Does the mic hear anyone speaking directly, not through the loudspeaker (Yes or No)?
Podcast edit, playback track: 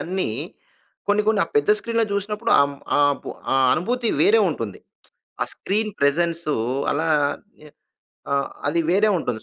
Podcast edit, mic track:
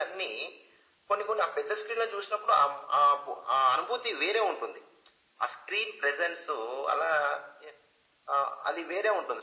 No